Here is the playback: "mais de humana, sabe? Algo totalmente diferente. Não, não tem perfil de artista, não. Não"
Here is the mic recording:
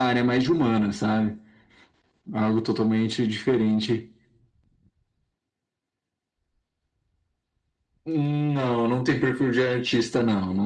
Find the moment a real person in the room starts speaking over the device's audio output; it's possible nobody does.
none

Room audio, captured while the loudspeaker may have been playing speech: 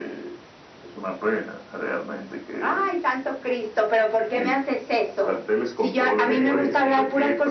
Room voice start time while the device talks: 6.2 s

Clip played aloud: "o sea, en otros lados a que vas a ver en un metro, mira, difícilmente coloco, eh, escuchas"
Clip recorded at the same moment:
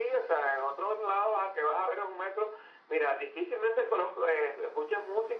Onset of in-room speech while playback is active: none

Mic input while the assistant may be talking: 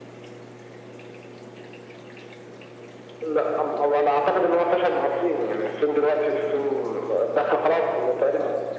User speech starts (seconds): none

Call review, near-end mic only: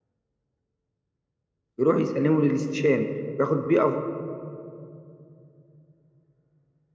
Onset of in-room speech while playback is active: 1.8 s

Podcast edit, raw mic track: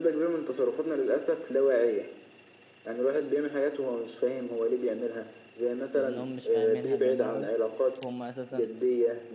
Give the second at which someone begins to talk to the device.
5.9 s

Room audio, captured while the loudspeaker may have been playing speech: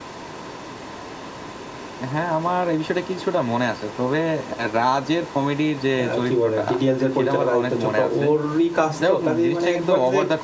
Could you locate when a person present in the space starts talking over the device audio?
6.0 s

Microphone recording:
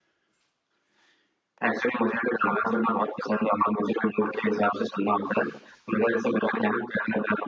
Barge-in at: none

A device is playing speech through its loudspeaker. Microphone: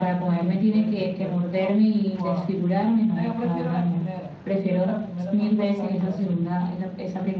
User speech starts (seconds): none

